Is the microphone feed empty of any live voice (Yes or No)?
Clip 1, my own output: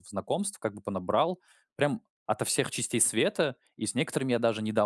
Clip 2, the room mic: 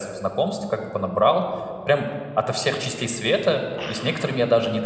Yes